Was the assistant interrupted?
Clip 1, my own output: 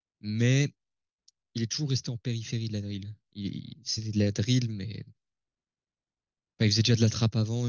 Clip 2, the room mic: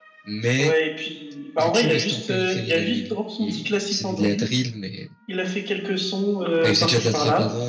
Yes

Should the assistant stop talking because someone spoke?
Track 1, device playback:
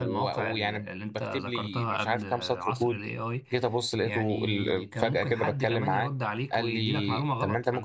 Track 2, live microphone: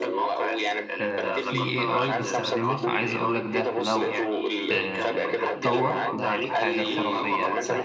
Yes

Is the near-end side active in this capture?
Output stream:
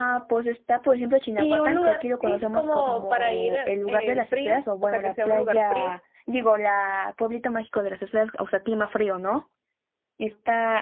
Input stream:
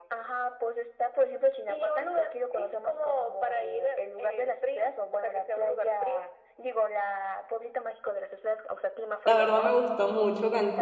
Yes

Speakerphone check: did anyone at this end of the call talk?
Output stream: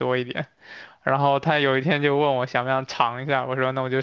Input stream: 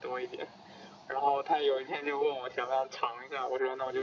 No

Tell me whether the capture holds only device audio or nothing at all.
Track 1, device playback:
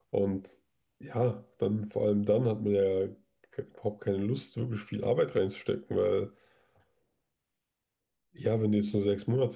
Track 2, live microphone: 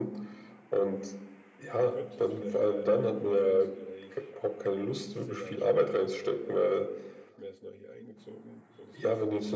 No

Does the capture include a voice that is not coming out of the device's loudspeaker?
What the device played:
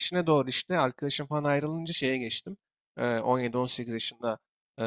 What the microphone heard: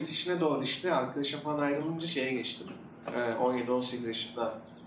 No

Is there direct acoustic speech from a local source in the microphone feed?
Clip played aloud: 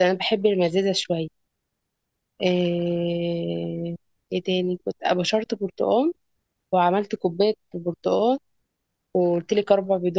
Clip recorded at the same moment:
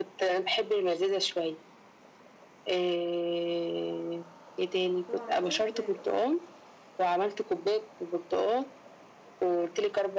Yes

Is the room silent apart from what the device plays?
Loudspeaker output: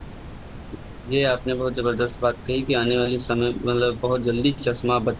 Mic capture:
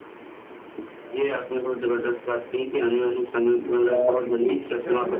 No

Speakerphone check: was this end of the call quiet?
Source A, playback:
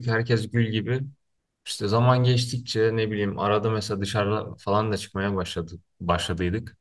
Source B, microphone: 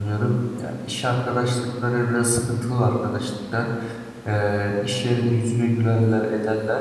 No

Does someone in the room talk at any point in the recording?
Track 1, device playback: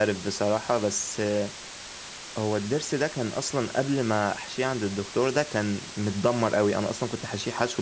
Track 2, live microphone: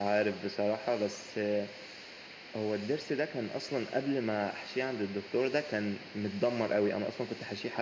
No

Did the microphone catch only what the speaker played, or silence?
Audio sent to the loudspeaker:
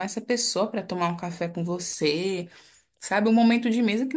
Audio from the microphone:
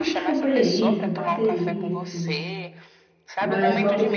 No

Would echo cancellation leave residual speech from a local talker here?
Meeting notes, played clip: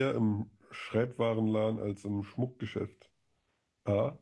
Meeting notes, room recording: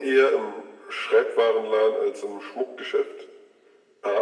No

